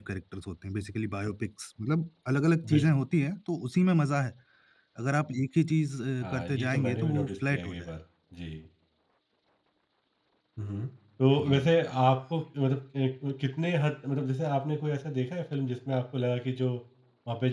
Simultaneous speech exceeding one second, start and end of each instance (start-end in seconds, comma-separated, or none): 6.2-7.9